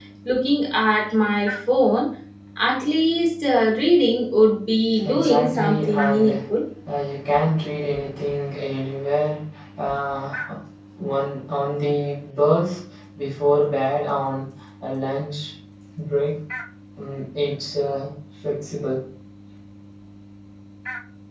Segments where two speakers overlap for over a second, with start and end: 5.0-6.3

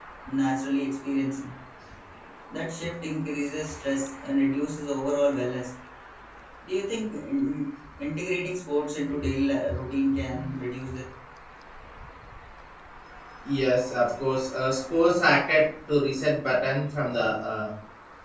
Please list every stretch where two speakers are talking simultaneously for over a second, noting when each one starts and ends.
none

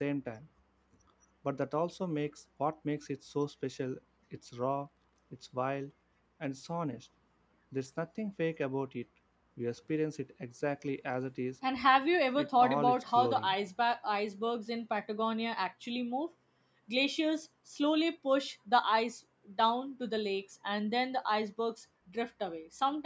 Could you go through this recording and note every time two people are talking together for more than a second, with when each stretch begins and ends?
12.3-13.5

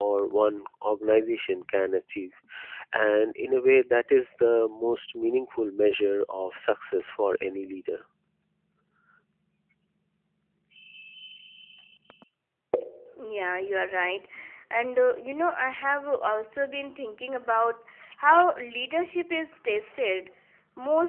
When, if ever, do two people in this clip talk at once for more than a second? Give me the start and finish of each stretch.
none

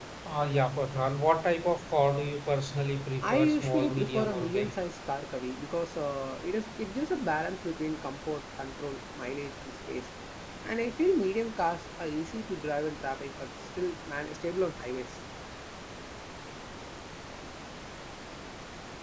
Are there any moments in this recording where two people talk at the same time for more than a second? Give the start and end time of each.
3.2-4.7

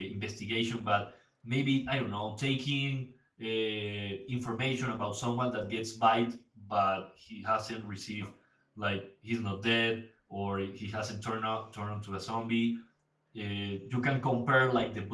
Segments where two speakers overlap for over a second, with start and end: none

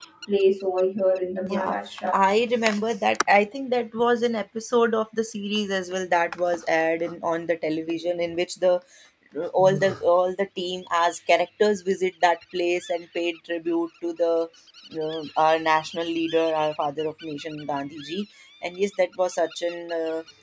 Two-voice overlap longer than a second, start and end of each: none

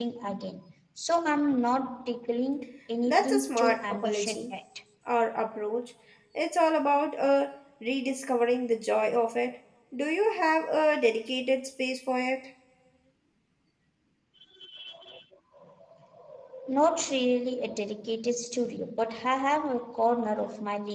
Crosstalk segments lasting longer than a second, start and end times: 3.0-4.4

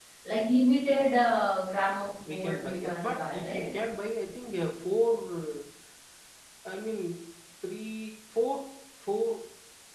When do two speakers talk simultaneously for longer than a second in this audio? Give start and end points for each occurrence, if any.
2.2-3.8

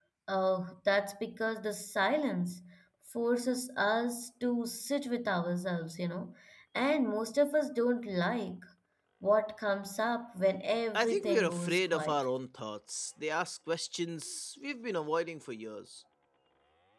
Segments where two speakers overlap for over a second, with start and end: 10.9-12.2

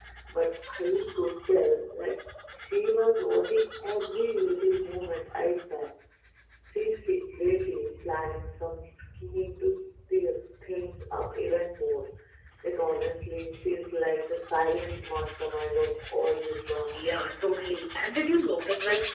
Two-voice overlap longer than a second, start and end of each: none

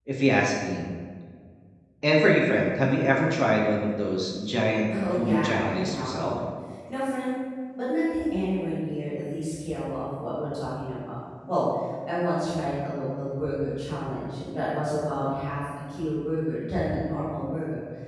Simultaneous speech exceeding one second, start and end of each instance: 5.2-6.3

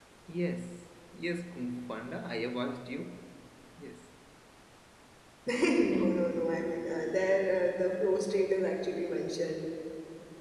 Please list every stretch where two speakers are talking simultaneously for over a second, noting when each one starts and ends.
none

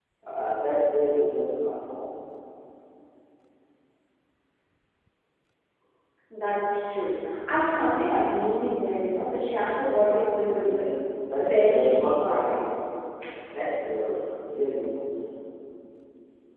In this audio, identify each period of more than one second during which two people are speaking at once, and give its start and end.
11.3-12.6

